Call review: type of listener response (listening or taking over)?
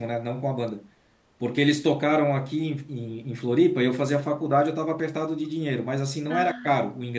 listening